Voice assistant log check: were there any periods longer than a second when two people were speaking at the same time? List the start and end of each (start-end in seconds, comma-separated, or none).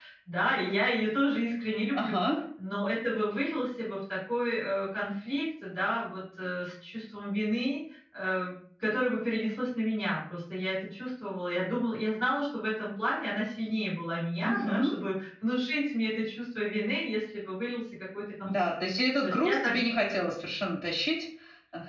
none